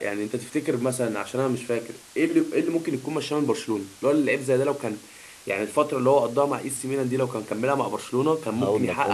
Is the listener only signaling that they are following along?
No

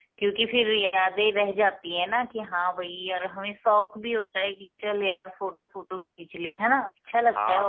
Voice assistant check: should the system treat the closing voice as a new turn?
Yes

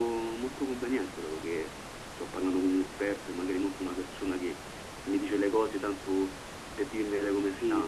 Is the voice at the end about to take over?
Yes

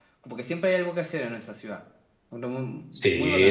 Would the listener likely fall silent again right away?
No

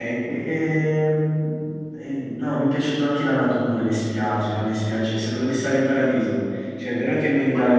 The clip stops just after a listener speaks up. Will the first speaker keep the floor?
Yes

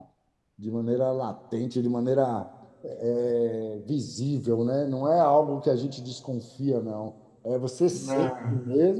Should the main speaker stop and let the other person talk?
No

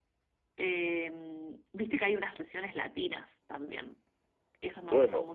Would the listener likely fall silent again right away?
No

